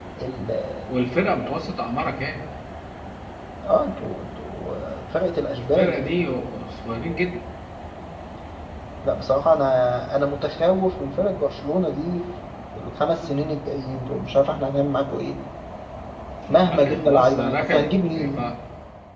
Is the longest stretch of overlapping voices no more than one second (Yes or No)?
No